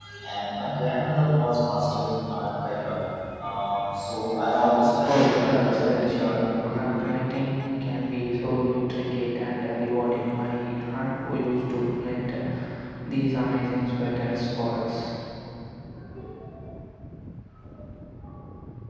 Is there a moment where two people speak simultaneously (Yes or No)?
Yes